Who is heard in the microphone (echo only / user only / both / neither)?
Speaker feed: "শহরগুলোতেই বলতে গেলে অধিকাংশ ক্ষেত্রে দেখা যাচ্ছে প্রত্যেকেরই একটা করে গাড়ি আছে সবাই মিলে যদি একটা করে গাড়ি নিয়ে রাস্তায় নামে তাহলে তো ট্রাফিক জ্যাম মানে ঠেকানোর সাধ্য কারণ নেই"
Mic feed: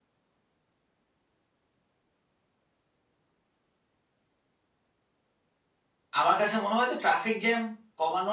user only